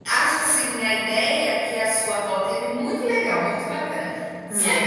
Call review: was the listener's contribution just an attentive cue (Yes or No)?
Yes